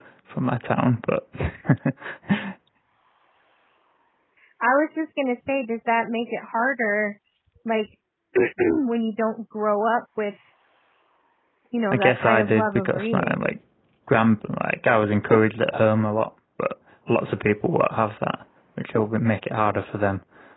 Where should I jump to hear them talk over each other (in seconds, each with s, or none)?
11.9 s